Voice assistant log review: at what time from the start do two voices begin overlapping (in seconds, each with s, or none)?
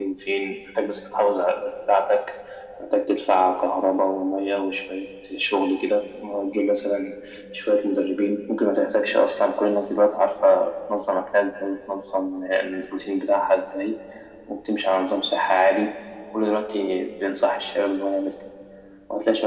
none